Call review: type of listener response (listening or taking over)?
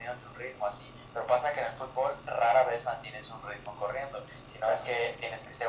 listening